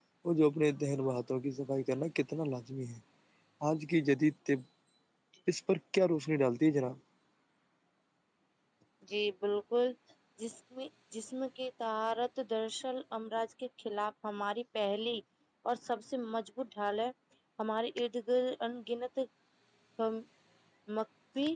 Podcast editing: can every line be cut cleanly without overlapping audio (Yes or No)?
Yes